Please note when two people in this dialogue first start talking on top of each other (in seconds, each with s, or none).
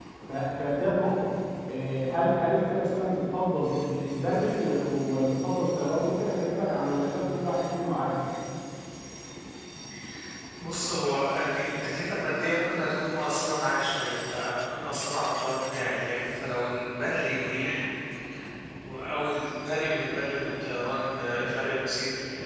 none